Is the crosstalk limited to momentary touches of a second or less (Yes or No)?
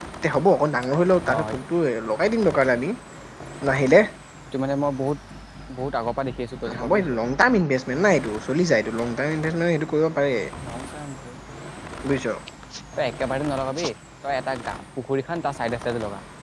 Yes